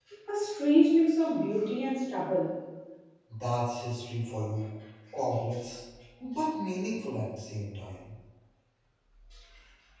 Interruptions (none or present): none